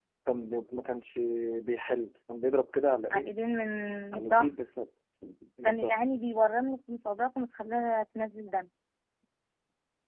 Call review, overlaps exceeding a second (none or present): none